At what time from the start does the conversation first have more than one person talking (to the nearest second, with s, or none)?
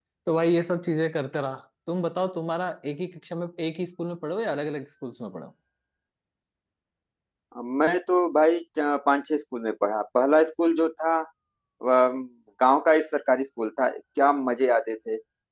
none